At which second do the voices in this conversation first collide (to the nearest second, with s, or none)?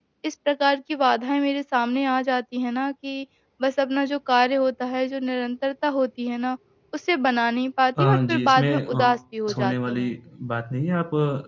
8 s